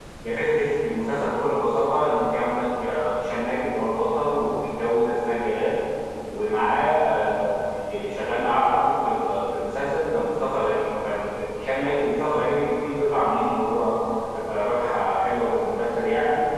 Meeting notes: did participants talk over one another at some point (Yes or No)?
No